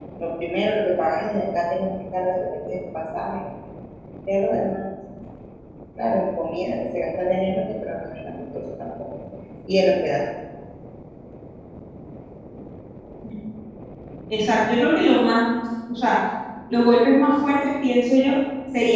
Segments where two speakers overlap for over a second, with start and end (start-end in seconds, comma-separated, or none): none